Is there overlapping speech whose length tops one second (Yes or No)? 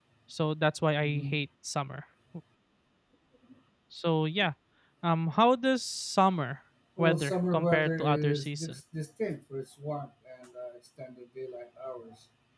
Yes